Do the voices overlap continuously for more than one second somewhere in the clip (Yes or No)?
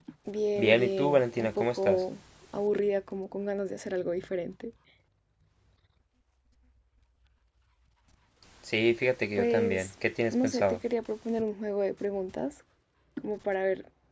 Yes